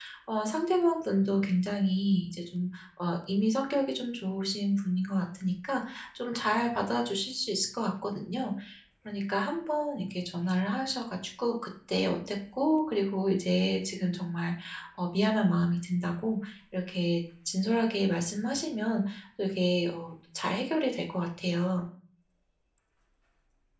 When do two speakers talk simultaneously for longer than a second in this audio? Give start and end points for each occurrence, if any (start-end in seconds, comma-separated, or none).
none